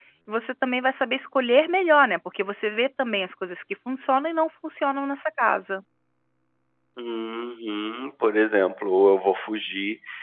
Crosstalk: none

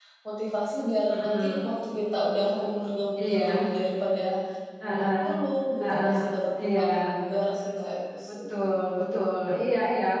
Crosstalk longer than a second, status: none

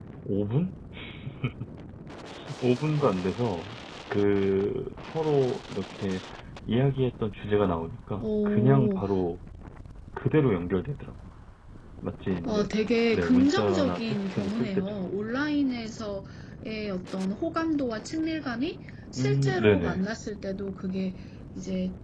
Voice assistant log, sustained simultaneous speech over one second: present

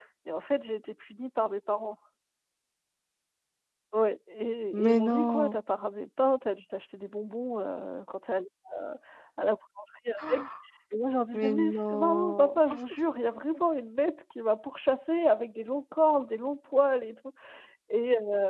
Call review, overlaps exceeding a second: present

